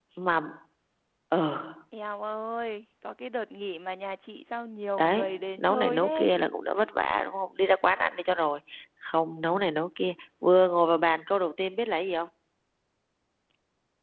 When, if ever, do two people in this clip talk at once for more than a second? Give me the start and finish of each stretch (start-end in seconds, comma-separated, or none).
5.0-6.3